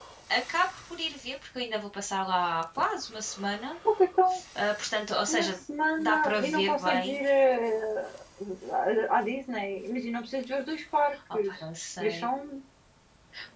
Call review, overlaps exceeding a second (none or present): present